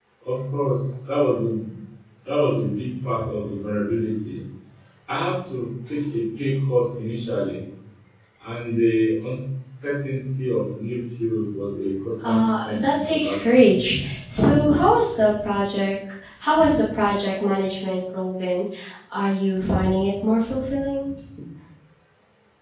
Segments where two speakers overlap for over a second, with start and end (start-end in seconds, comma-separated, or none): 12.2-13.6